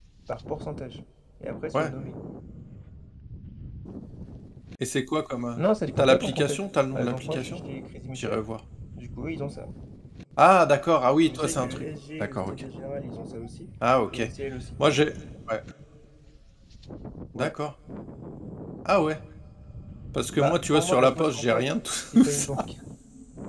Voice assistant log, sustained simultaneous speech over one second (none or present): present